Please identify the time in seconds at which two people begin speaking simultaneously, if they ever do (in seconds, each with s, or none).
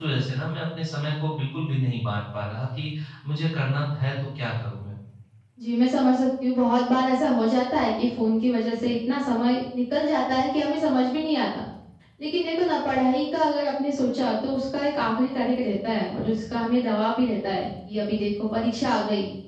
none